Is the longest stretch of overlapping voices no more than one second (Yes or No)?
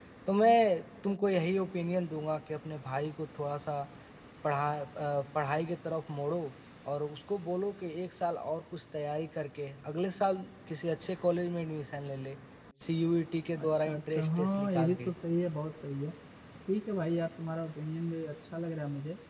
No